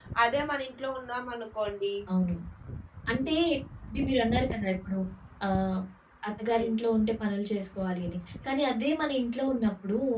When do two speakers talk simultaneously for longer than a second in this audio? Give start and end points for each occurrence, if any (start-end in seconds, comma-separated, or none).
none